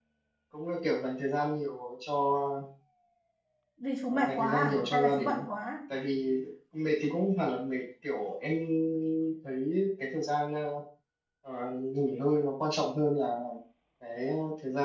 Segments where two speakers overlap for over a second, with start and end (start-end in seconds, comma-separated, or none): 4.1-5.4